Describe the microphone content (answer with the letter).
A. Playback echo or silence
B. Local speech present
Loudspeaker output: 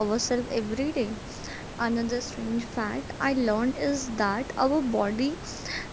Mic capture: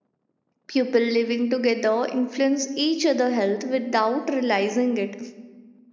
B